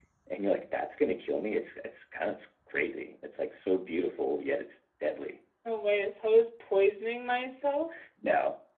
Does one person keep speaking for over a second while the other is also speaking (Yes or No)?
No